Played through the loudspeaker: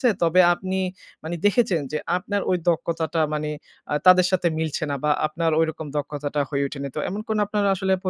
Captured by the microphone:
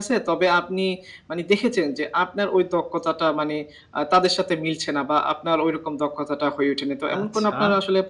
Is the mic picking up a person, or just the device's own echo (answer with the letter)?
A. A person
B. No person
A